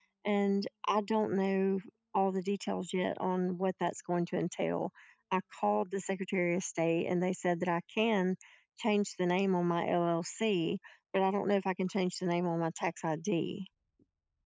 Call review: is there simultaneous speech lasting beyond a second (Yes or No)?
No